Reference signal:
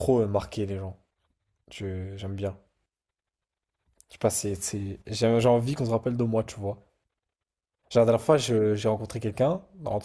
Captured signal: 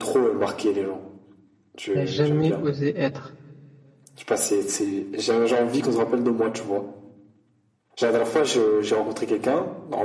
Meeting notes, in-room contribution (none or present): present